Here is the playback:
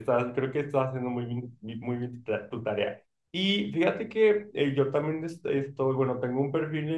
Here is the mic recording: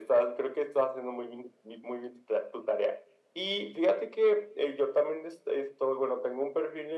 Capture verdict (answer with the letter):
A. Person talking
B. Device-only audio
B